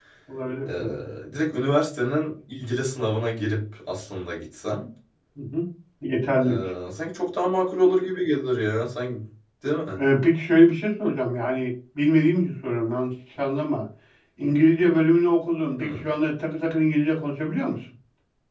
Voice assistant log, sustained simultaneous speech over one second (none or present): none